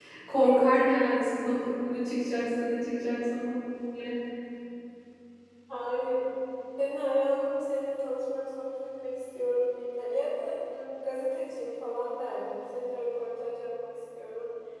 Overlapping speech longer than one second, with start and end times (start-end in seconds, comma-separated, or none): none